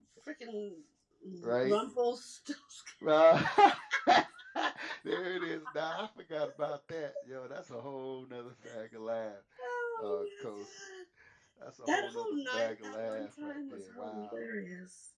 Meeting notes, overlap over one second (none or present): present